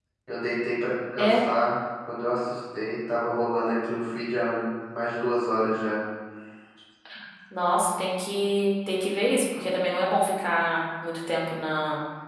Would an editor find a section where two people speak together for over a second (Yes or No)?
No